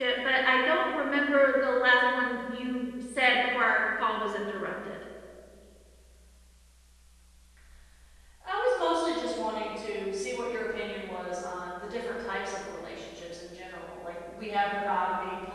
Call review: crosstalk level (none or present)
none